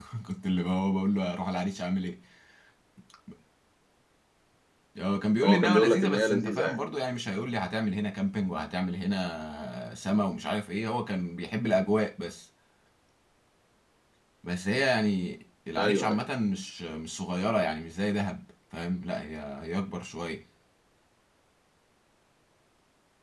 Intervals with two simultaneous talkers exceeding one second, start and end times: 5.4-6.8

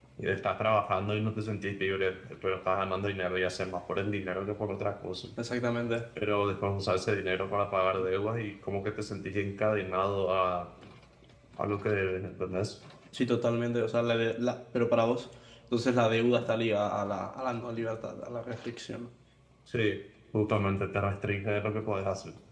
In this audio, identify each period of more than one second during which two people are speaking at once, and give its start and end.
none

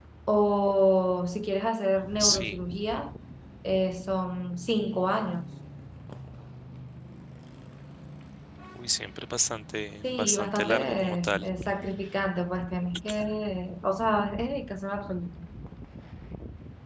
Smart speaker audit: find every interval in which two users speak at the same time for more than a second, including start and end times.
10.0-11.5

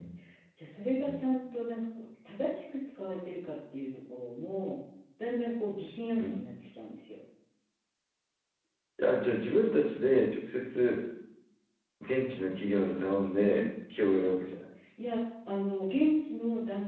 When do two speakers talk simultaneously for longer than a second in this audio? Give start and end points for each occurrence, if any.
none

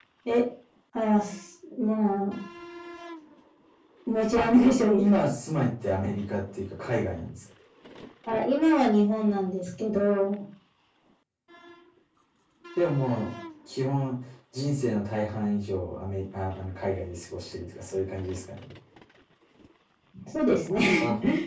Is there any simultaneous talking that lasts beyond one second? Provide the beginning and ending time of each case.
none

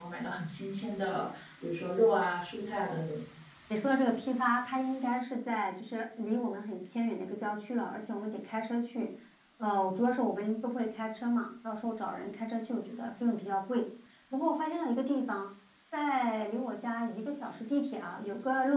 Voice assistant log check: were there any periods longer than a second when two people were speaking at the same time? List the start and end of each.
none

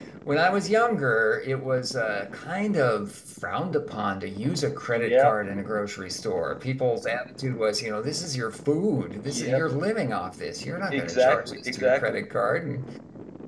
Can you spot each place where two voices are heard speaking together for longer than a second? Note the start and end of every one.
10.9-12.2

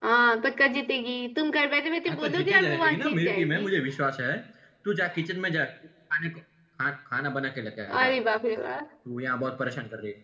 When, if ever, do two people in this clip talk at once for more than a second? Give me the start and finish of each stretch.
2.1-3.6

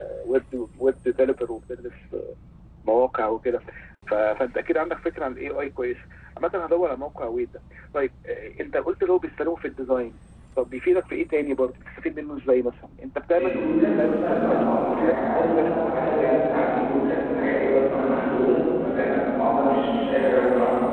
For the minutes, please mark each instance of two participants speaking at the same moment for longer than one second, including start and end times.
13.4-16.0

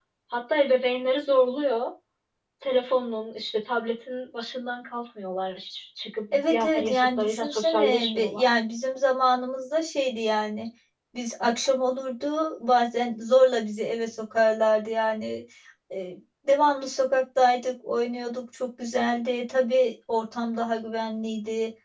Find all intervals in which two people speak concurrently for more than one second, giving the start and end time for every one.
6.3-8.4

